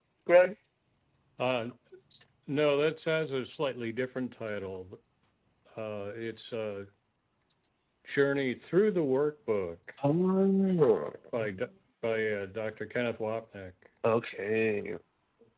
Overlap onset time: none

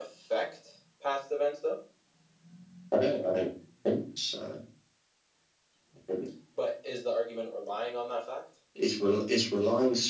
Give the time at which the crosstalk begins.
none

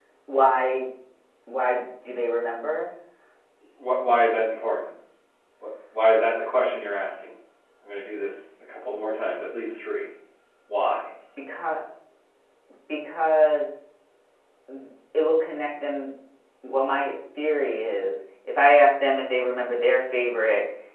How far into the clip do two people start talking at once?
none

